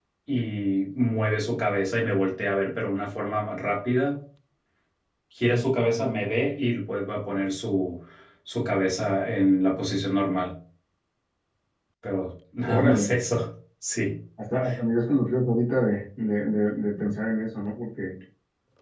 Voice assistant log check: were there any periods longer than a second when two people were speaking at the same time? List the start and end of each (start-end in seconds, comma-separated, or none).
none